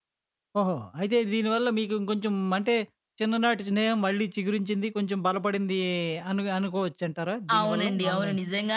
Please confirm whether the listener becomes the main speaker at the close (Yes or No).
Yes